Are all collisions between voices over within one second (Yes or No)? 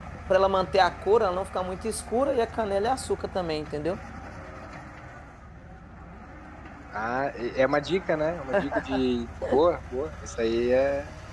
Yes